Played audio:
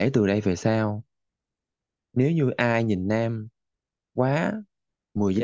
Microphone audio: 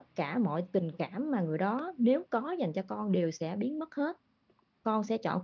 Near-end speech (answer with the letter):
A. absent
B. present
B